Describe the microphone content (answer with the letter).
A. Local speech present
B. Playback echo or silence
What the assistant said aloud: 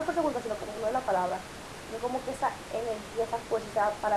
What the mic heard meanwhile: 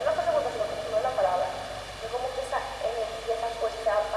B